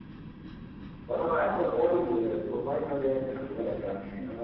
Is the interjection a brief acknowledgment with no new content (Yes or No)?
No